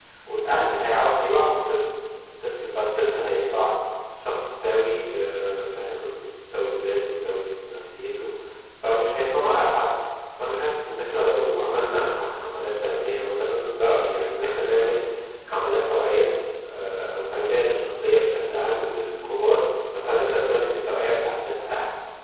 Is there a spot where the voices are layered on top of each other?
No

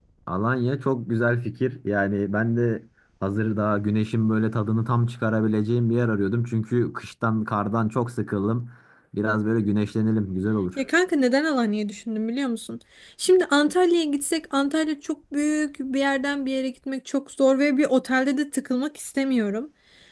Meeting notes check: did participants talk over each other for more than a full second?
No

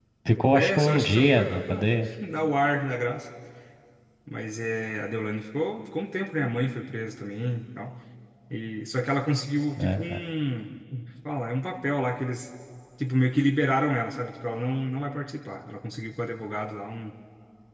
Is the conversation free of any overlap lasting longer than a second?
No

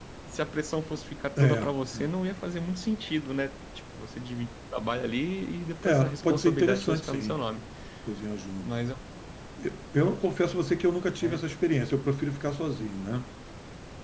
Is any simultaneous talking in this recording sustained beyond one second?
Yes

